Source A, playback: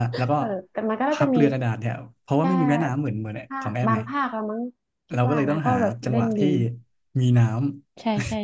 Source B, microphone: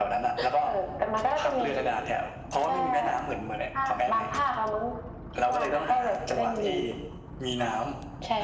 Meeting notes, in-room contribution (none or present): none